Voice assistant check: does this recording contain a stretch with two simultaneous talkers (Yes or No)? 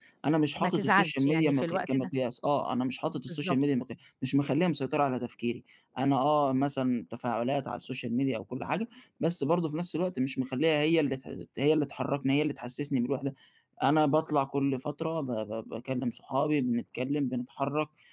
Yes